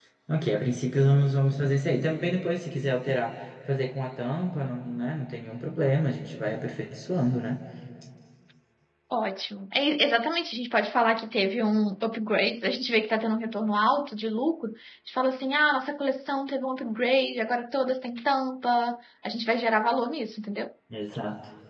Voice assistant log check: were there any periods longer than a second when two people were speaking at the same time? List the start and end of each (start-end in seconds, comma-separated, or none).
none